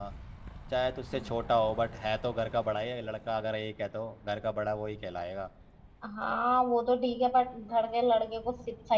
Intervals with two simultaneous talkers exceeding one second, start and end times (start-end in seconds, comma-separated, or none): none